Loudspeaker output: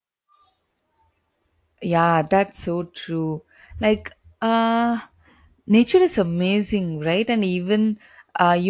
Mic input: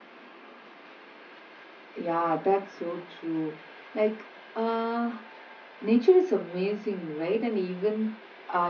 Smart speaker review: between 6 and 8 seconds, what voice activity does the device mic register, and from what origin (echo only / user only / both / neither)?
echo only